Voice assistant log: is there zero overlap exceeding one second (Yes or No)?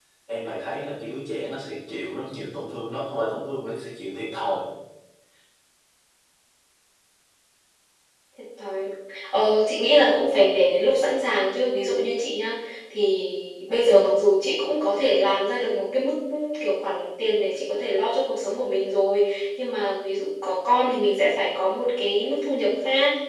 Yes